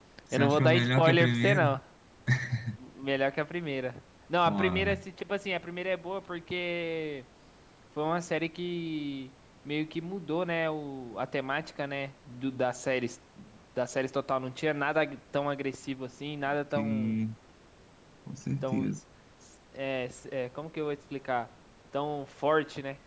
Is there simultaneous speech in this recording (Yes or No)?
Yes